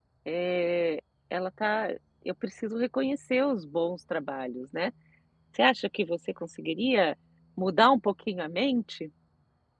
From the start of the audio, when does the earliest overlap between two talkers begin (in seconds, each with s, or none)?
none